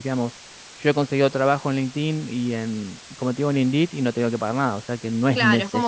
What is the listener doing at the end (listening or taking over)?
taking over